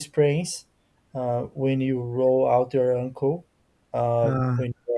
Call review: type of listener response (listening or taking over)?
listening